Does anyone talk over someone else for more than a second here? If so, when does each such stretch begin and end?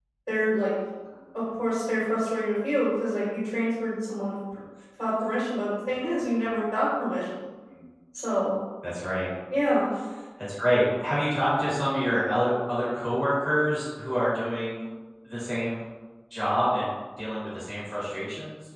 none

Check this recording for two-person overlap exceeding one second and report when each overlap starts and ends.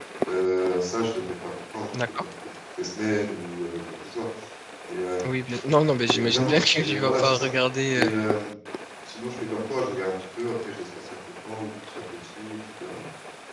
6.1-7.5

